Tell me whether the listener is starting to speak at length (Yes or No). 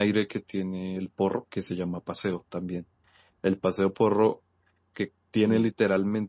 No